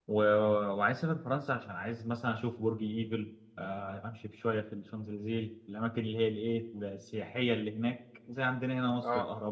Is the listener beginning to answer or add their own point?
No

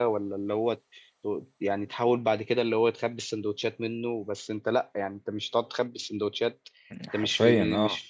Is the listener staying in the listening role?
Yes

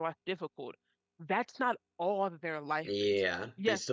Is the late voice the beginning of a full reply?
Yes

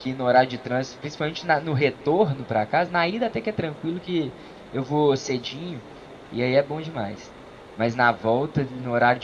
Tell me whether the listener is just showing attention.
Yes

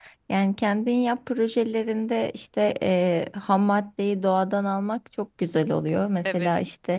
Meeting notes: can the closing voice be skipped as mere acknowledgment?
Yes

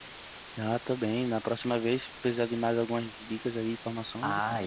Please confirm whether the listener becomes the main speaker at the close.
Yes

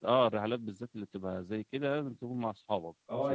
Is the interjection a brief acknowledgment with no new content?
No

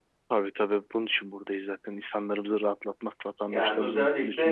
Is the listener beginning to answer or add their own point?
Yes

